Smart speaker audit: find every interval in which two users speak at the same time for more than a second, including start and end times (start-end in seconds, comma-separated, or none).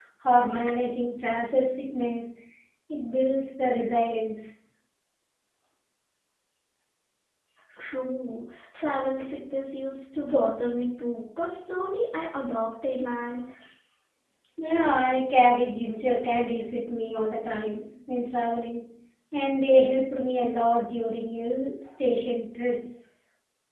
none